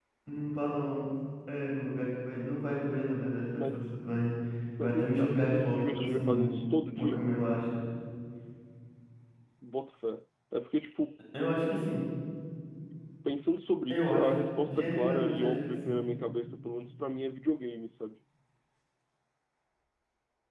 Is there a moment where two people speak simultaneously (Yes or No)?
Yes